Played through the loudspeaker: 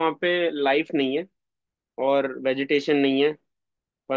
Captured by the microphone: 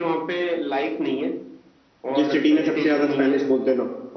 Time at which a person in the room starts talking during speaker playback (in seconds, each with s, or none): 2.2 s